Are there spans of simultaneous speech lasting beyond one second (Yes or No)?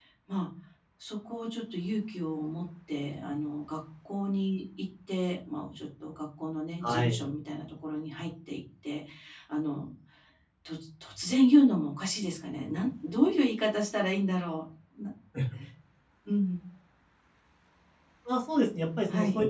No